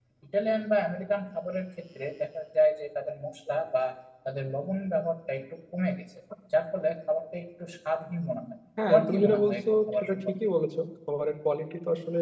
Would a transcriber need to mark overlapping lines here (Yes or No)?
Yes